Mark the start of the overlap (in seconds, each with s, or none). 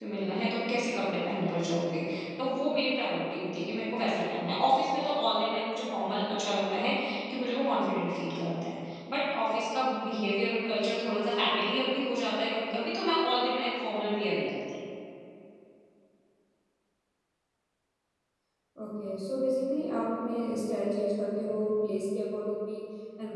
none